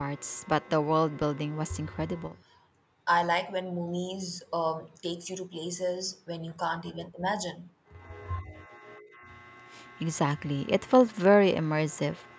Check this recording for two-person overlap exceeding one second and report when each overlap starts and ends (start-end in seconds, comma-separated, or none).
none